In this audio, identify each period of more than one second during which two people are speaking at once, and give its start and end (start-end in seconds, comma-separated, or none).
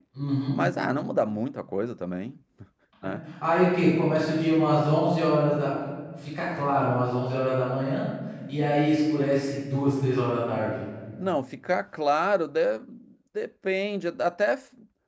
none